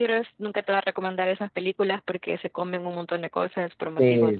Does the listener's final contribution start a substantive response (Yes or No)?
Yes